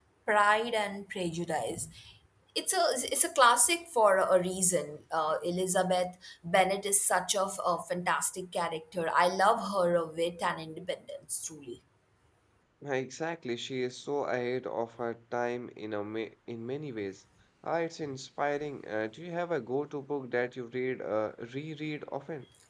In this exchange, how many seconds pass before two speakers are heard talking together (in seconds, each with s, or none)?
none